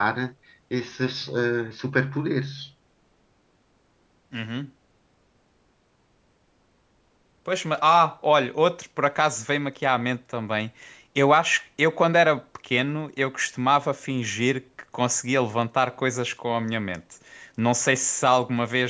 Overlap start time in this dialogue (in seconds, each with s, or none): none